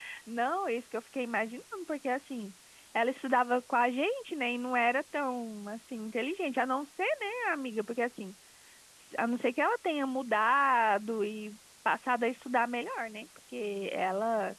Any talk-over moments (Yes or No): No